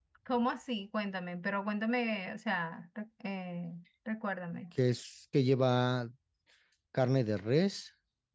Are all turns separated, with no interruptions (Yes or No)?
Yes